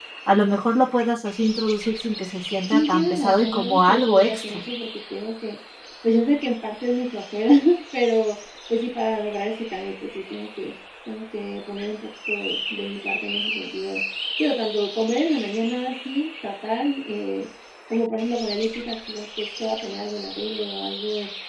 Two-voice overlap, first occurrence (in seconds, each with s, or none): 2.7 s